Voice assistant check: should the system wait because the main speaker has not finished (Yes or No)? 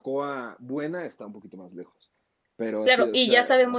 No